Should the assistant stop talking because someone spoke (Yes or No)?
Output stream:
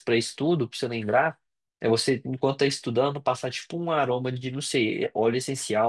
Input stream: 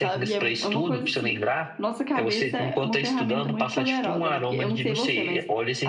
Yes